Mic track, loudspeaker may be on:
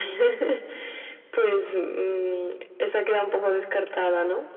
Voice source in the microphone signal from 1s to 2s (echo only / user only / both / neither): echo only